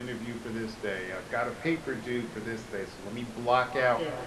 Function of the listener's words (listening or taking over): listening